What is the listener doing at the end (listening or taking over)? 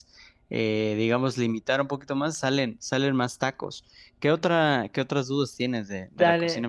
taking over